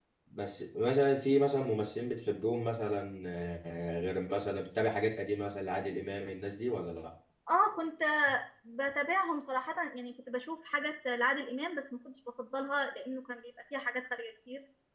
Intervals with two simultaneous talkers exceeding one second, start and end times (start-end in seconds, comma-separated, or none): none